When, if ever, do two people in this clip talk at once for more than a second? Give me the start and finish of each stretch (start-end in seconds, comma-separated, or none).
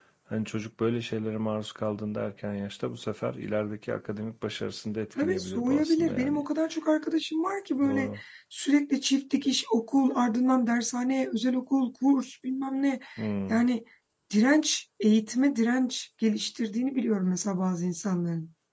5.2-6.4